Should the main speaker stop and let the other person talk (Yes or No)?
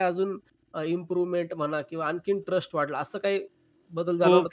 Yes